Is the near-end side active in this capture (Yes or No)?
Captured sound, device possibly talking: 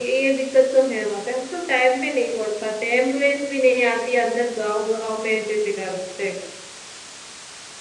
Yes